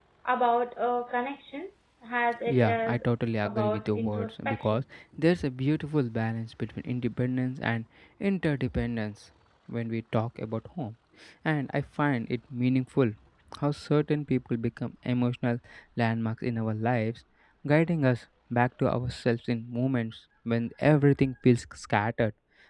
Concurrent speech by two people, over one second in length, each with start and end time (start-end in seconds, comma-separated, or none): 3.4-4.8